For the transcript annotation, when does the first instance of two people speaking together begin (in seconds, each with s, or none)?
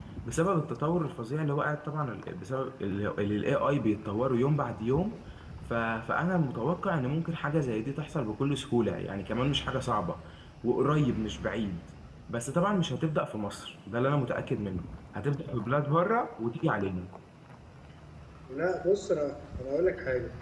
none